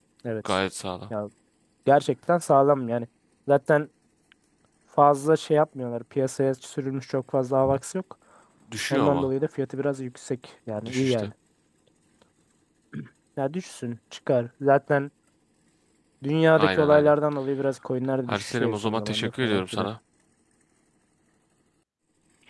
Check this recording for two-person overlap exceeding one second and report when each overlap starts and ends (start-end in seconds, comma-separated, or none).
18.3-19.9